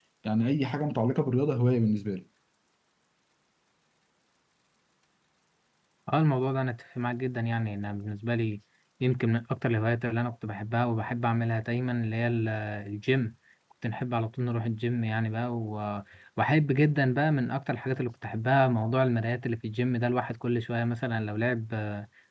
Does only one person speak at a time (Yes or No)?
Yes